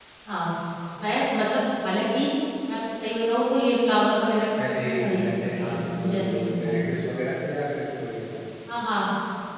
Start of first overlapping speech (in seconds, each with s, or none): 4.6 s